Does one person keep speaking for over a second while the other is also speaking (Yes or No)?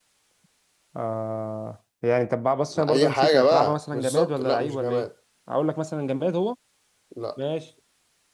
Yes